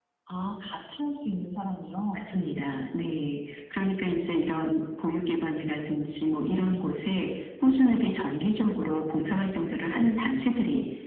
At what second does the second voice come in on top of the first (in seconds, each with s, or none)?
none